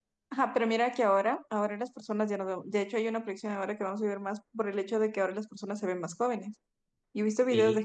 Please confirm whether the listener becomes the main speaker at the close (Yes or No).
No